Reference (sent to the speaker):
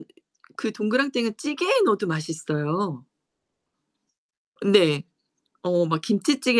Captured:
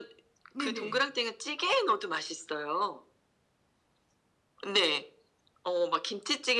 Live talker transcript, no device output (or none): 네네.